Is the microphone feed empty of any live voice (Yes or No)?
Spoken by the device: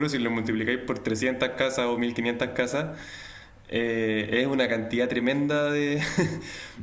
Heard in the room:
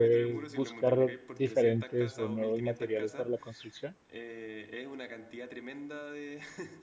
No